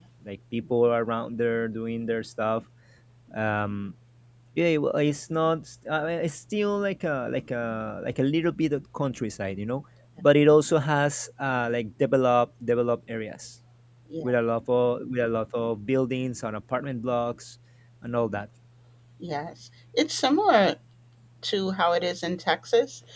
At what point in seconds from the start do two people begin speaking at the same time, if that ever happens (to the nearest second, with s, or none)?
none